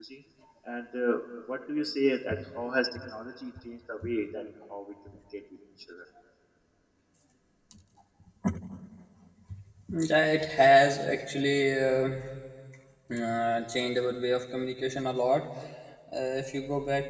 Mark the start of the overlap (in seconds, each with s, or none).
none